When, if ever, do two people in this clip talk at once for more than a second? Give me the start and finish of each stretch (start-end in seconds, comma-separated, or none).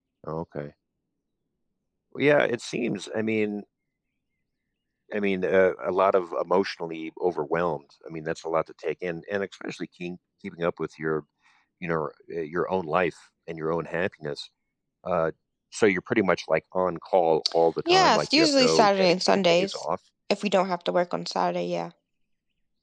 17.9-19.8